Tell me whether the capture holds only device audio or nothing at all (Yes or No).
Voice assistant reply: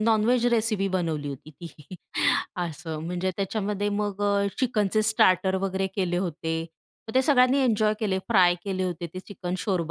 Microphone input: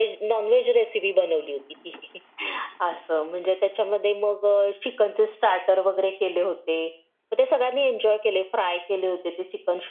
Yes